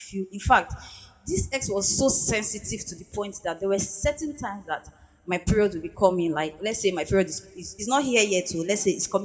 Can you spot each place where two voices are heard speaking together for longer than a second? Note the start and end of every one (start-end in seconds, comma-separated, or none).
none